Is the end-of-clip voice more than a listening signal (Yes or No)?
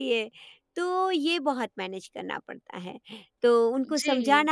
No